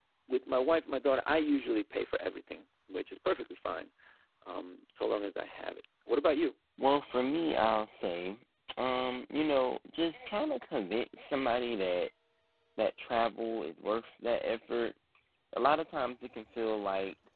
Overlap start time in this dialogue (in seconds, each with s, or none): none